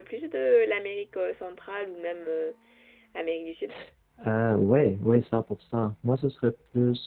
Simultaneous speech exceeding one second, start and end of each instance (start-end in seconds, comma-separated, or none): none